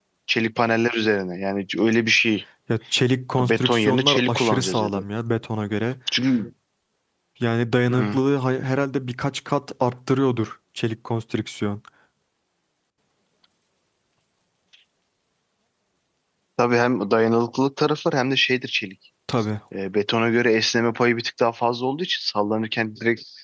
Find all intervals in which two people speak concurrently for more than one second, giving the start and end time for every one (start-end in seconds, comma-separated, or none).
3.4-5.0